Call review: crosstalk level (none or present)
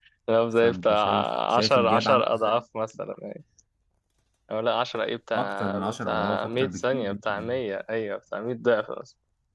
present